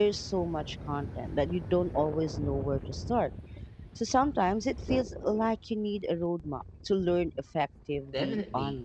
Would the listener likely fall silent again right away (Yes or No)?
No